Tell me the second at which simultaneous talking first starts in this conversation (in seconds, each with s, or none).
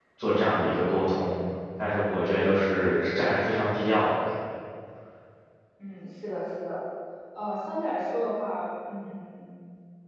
none